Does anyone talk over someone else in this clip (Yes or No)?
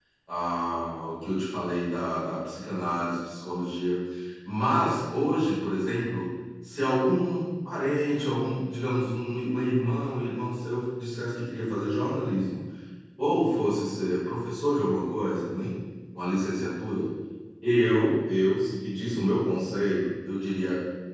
No